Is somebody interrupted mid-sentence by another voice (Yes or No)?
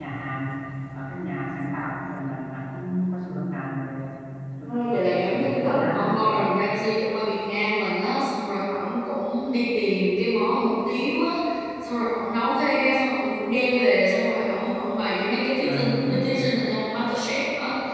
Yes